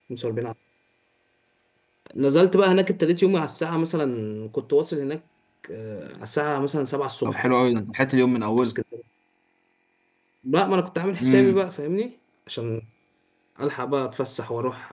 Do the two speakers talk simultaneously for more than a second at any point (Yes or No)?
No